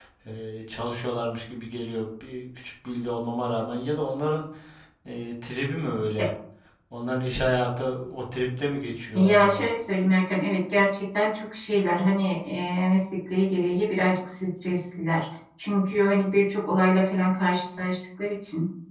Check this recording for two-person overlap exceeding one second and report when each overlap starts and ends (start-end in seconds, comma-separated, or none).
none